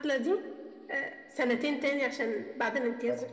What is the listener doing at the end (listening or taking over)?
taking over